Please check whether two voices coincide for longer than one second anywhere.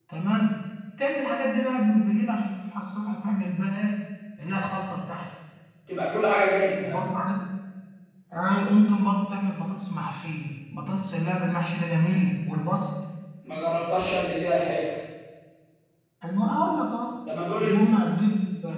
No

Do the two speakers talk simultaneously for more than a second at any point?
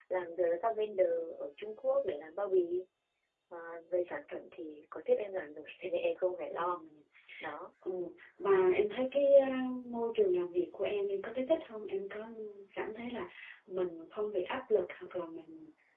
No

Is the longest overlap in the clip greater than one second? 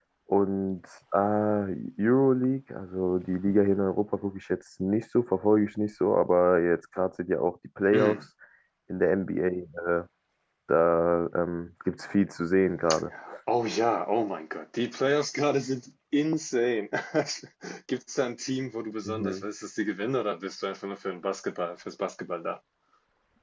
No

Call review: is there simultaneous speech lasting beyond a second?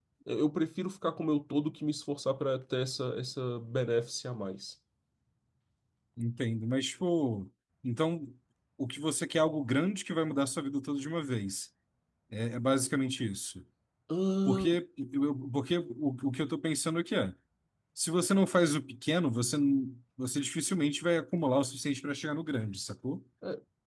No

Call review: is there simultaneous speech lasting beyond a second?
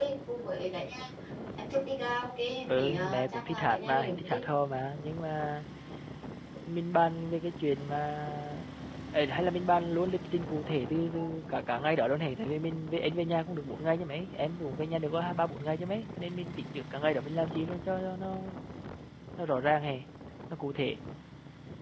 Yes, from 2.7 s

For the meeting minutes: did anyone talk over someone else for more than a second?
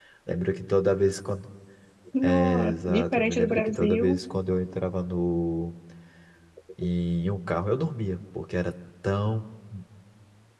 Yes, from 2.2 s

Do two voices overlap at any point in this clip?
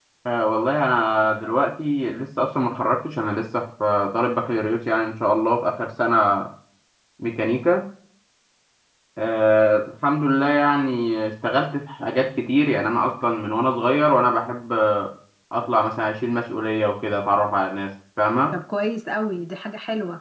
No

